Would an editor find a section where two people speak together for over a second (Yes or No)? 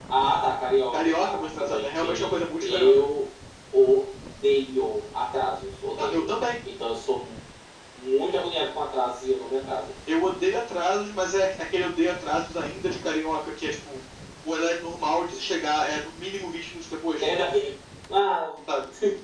Yes